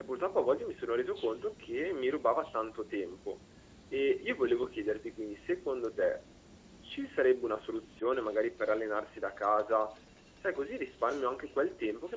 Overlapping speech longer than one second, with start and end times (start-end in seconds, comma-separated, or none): none